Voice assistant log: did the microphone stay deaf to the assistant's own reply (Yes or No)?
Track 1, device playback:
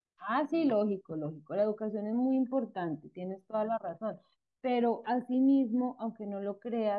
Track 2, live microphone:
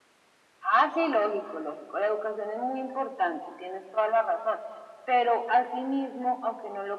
No